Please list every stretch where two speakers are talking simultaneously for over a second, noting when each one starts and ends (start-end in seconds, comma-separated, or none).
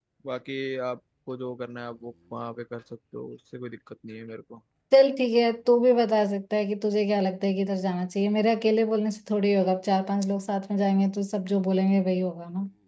none